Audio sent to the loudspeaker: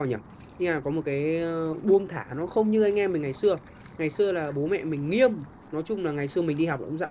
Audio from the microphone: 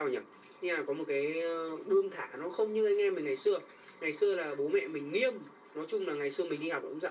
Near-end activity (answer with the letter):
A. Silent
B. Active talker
A